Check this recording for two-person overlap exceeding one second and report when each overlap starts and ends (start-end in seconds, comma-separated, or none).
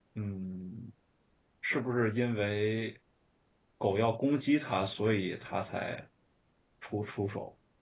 none